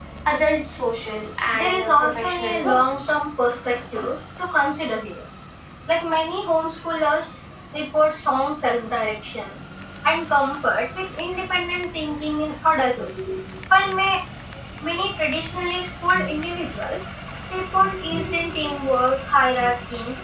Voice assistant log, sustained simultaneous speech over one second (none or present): present